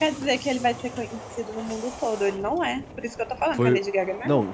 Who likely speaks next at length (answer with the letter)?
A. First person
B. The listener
B